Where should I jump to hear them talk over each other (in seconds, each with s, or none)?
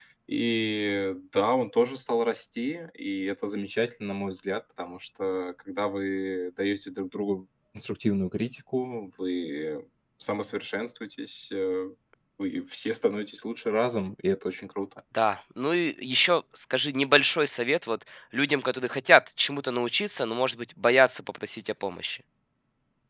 none